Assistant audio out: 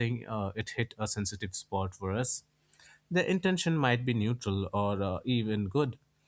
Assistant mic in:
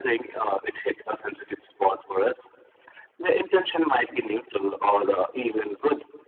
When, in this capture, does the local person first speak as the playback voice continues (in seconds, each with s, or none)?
none